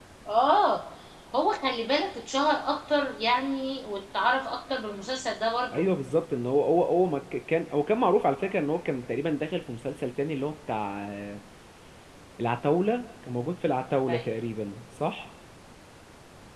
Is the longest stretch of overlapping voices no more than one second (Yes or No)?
Yes